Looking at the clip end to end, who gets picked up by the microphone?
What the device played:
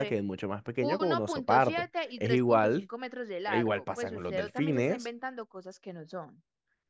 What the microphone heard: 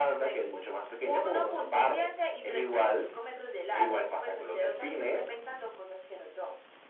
echo only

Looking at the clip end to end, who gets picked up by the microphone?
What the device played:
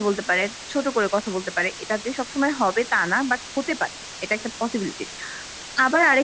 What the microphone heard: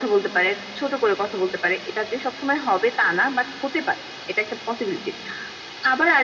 echo only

